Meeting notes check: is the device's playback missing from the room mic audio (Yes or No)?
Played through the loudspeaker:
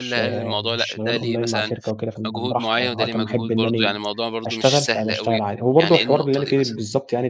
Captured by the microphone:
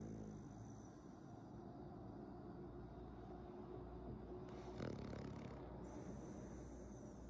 Yes